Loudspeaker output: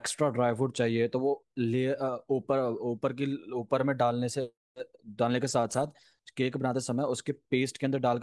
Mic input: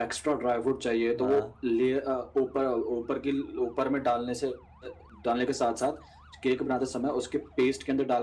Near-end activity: present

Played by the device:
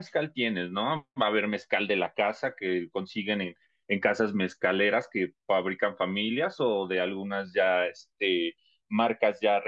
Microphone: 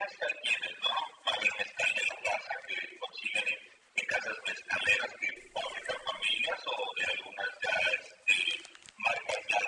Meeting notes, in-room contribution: none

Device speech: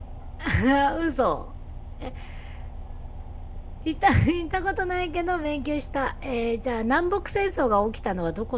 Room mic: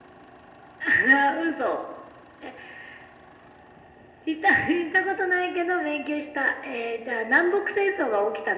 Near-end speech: none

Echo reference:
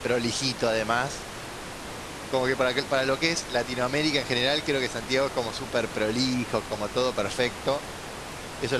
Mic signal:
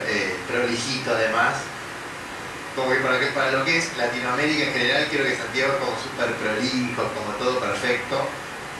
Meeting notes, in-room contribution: none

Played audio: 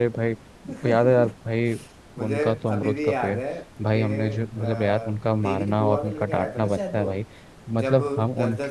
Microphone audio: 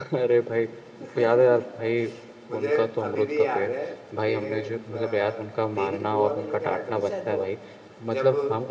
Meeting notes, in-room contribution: none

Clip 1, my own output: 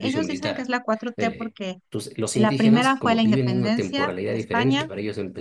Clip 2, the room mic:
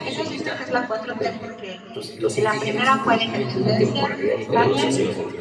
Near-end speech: present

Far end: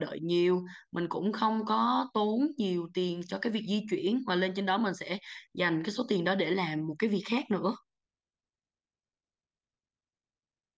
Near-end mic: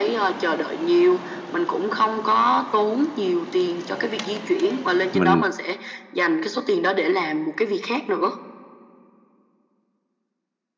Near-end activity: present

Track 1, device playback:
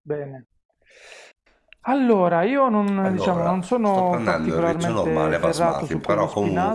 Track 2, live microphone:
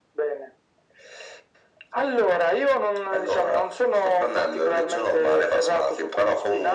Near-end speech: none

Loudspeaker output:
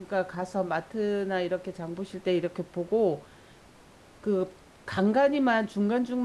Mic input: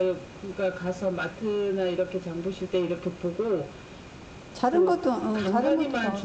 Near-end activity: present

